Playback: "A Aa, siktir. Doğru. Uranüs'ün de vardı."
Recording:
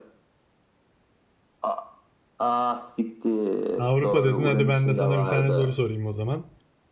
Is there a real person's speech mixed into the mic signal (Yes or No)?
Yes